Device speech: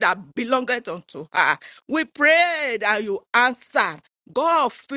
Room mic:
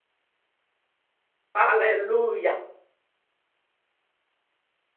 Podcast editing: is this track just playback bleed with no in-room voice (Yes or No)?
No